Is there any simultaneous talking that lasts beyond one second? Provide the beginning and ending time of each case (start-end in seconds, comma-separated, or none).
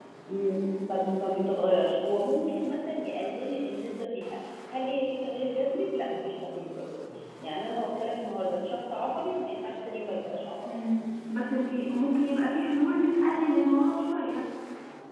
none